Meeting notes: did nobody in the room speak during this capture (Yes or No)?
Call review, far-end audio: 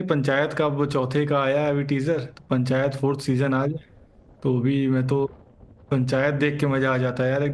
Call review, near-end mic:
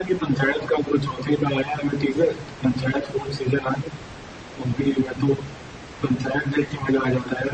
Yes